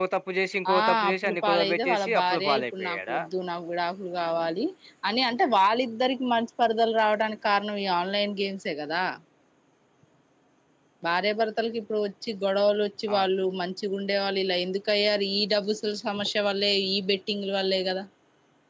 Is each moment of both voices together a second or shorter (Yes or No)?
No